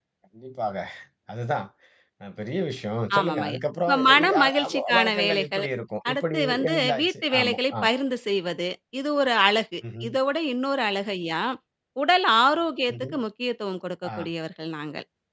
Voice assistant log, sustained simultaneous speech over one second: present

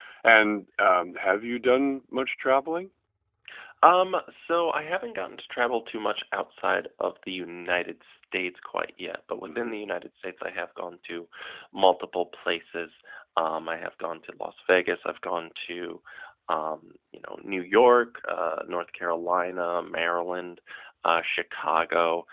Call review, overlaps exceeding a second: none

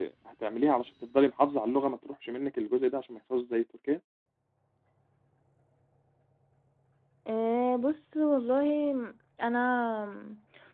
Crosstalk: none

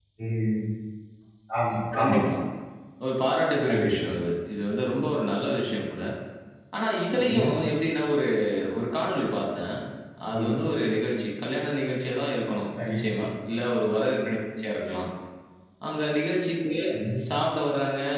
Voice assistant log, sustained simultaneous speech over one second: none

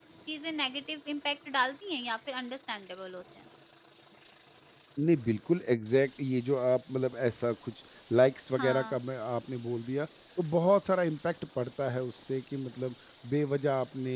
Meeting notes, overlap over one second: none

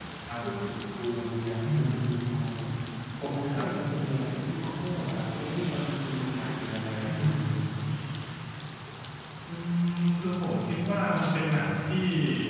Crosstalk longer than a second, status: none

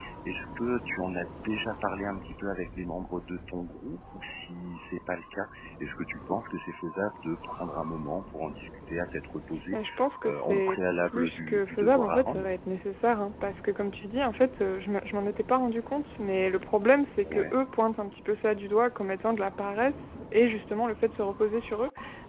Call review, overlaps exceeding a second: present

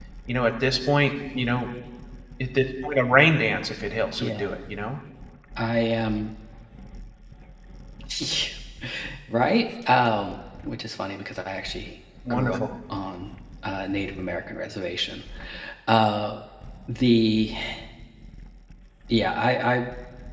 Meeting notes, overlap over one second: none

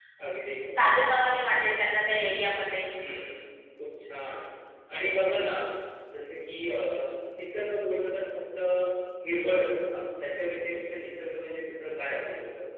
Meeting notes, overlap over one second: none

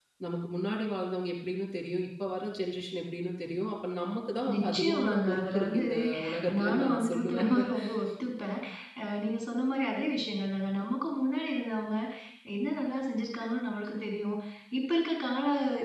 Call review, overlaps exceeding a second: present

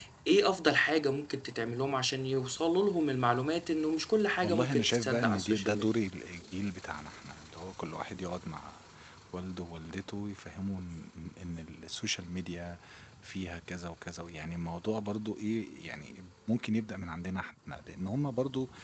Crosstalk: present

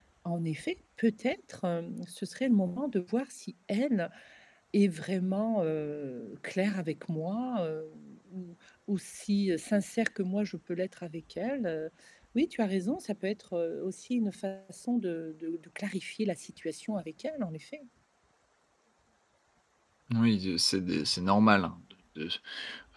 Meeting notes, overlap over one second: none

